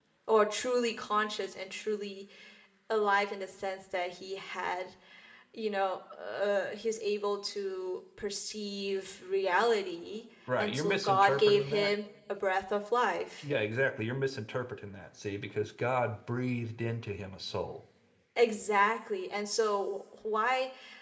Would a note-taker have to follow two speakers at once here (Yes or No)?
Yes